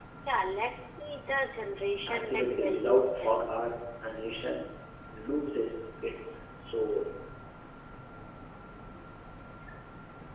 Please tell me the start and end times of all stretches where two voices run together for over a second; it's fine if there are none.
2.1-3.4

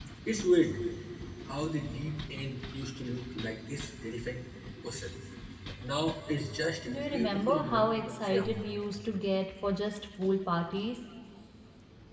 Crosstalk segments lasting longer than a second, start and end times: 6.9-8.6

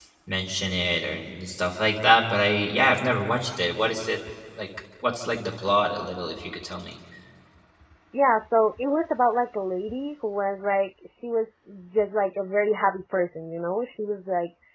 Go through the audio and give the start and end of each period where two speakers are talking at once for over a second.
none

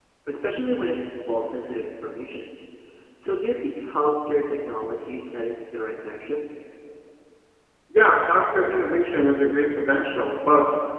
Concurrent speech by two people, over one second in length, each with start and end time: none

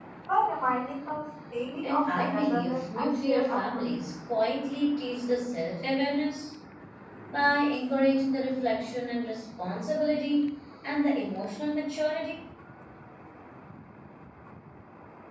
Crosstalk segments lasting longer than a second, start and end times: 1.8-3.9

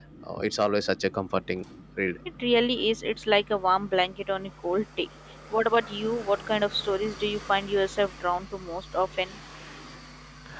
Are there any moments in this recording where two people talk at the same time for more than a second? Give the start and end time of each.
none

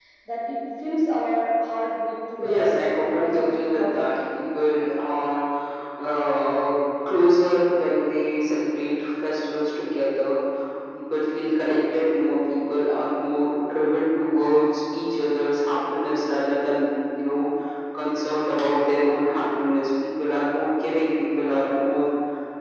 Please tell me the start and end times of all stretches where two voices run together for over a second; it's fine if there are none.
2.4-4.1

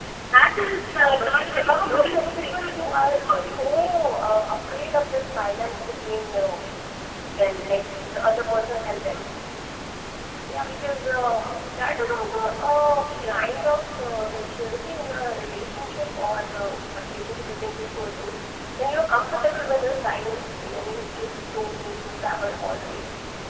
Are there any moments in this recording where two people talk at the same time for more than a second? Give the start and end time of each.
0.8-3.9

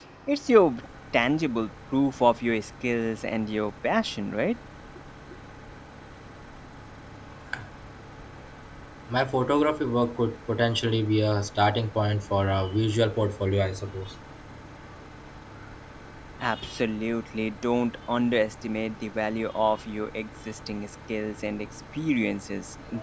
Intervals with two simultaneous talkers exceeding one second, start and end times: none

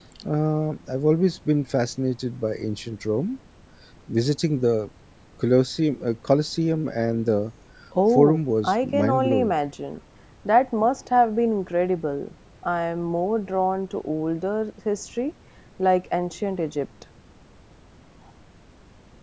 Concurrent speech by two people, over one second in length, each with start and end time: 8.1-9.5

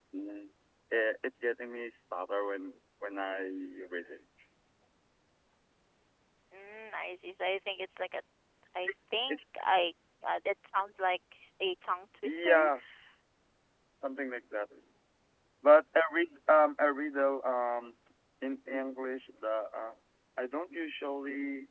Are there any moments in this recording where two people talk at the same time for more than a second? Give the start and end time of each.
none

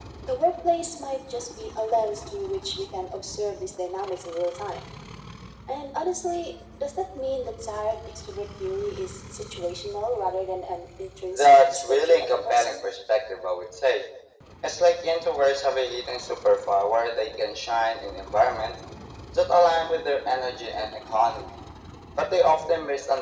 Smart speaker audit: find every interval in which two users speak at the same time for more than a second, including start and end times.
11.3-12.7

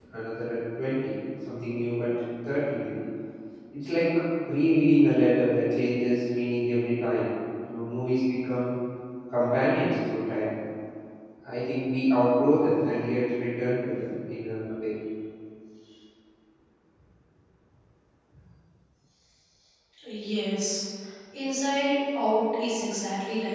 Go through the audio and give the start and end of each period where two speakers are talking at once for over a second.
none

